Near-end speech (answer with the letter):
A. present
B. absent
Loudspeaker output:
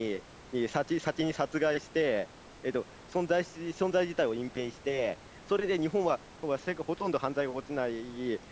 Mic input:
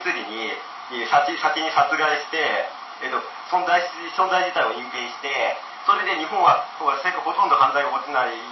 B